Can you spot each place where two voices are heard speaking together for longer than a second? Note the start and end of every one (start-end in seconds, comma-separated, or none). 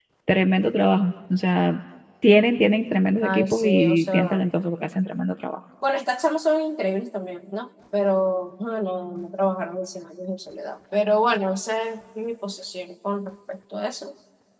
3.2-4.4